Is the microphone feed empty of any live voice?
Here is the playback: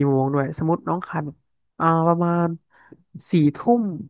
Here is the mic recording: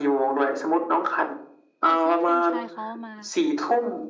No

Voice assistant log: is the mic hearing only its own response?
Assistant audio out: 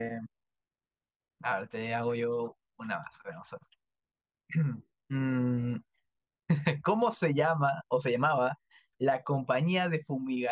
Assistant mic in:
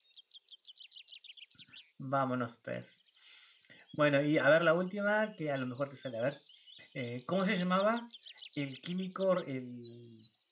No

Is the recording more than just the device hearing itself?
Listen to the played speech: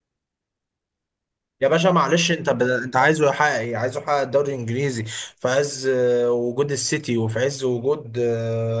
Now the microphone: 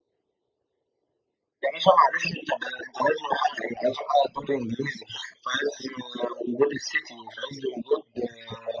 No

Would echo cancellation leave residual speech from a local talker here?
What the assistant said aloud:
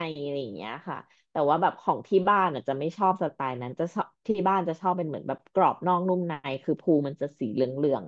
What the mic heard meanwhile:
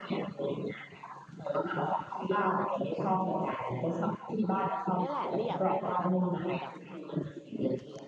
Yes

